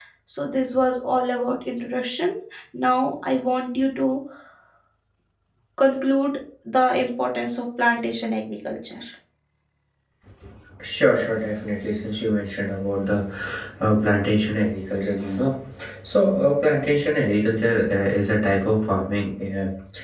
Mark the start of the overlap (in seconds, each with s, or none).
none